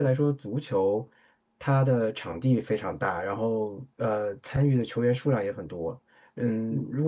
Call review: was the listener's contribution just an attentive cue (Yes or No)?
Yes